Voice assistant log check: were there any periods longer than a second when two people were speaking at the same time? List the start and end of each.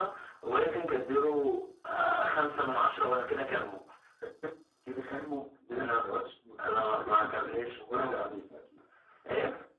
6.6-8.3

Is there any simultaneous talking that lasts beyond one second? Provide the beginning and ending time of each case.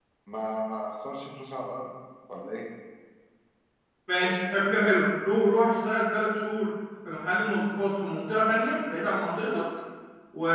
none

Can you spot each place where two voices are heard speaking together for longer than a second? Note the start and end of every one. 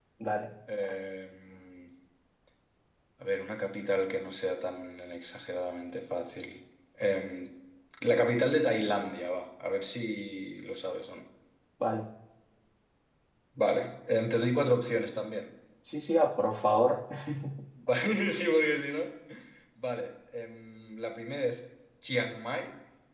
none

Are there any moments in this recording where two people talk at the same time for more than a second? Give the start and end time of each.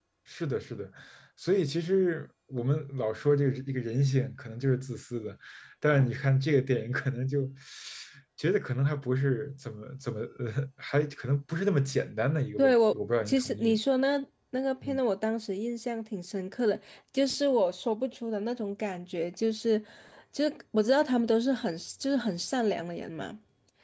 12.6-13.8

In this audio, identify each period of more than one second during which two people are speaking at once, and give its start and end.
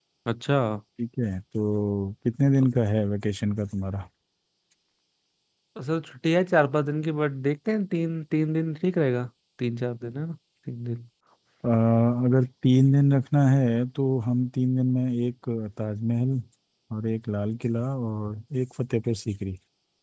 none

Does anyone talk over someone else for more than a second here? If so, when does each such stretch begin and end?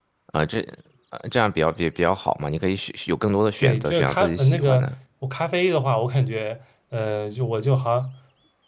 3.6-4.9

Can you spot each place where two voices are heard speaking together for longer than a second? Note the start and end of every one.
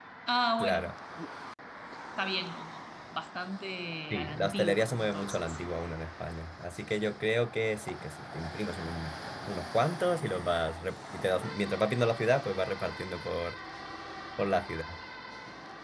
4.1-5.6

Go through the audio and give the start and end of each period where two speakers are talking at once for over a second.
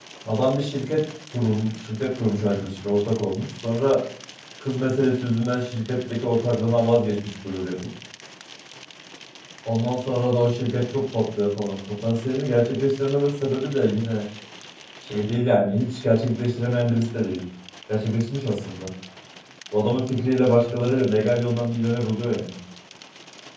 none

